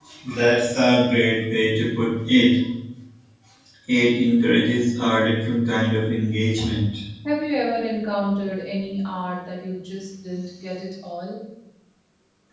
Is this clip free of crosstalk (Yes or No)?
Yes